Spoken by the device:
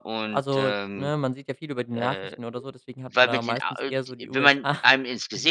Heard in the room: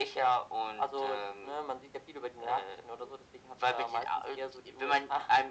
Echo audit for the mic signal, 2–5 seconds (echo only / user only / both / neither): echo only